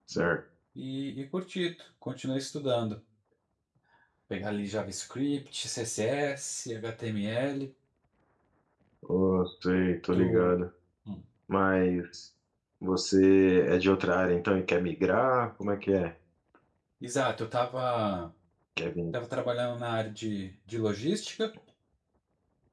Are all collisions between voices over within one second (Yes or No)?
Yes